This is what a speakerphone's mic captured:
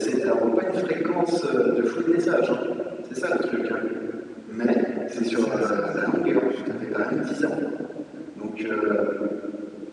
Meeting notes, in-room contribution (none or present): present